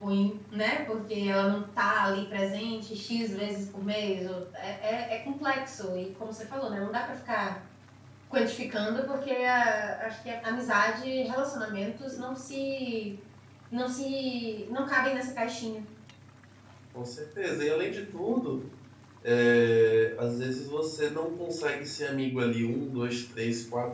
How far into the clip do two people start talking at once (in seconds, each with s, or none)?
none